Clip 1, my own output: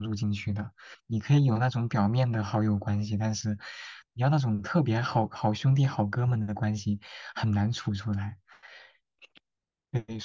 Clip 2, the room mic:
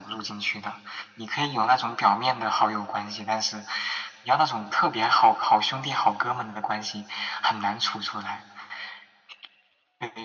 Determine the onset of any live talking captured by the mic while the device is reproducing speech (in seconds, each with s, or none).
none